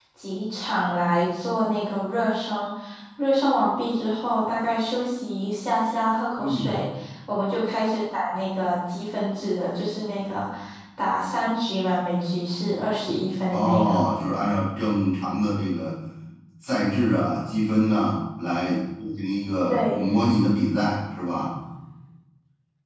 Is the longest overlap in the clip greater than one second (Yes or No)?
No